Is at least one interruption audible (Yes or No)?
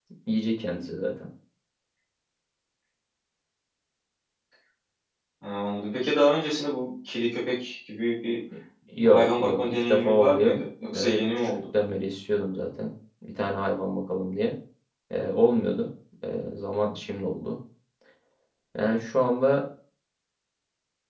Yes